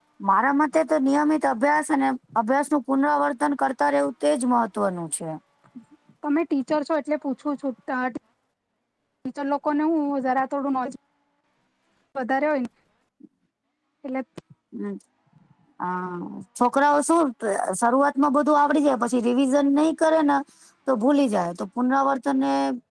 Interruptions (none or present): none